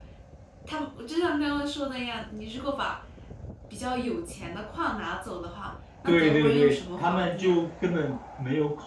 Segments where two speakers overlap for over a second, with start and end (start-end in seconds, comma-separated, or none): 6.1-7.5